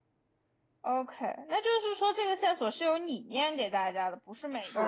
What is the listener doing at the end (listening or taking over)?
taking over